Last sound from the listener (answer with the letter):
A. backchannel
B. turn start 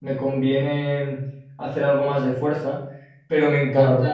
A